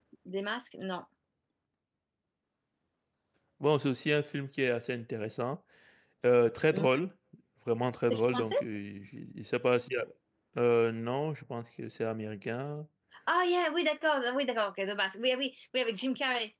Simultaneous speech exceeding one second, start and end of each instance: none

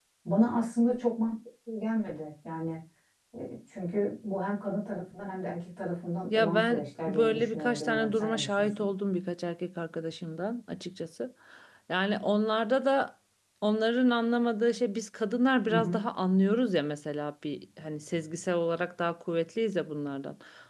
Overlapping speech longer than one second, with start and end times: 6.3-8.9

